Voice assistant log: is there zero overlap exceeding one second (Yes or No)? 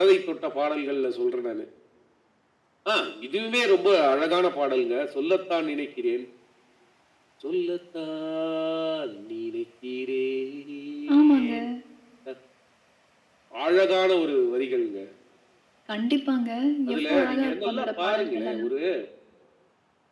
No